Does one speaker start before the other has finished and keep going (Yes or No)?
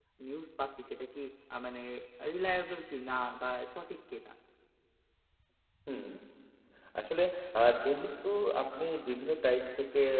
No